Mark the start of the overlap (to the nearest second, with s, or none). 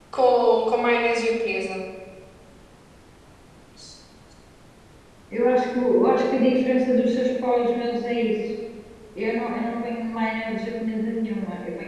none